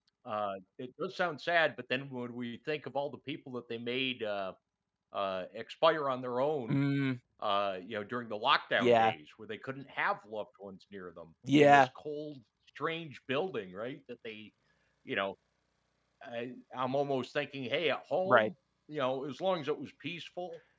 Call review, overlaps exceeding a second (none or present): none